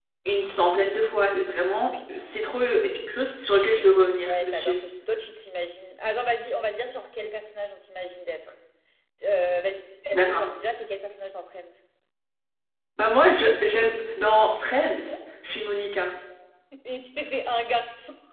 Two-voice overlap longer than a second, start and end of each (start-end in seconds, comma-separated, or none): none